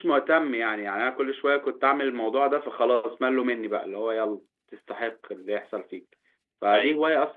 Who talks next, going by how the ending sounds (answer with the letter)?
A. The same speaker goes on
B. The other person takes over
A